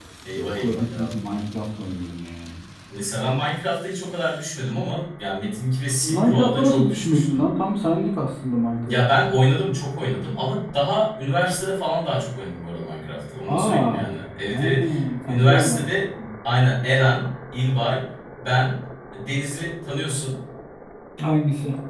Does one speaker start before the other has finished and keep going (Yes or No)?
Yes